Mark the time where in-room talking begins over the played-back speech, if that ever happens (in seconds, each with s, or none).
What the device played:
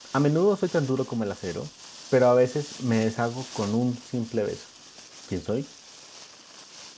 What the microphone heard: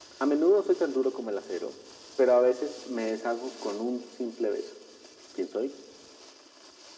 none